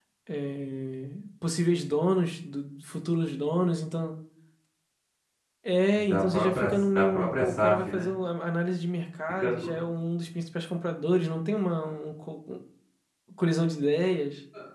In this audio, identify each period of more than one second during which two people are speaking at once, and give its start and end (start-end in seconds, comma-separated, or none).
6.0-8.1